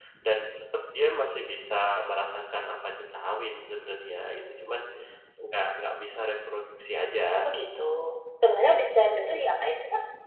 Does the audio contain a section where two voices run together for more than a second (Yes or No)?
No